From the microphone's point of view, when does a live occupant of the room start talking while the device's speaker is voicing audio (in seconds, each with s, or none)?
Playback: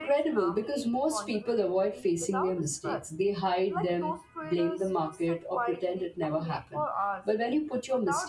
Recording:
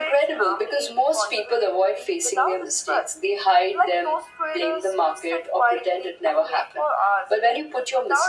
none